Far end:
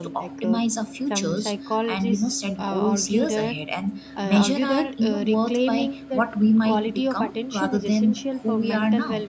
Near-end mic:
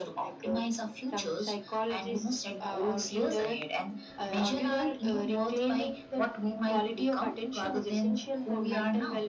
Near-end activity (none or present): none